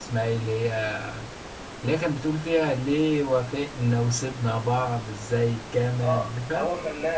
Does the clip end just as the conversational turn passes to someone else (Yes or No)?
Yes